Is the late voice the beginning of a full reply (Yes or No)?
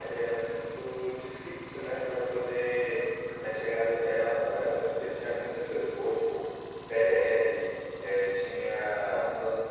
No